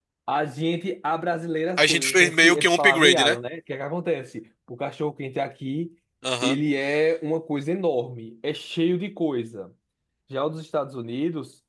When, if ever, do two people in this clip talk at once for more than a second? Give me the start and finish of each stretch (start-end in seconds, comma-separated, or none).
1.8-3.4